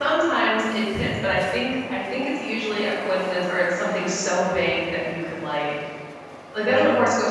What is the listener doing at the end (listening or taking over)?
listening